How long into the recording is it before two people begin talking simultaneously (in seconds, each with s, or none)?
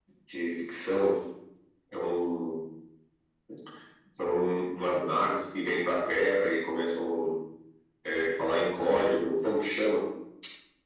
none